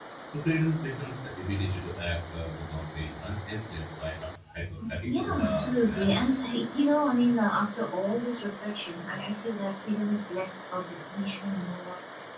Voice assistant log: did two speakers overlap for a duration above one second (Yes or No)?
Yes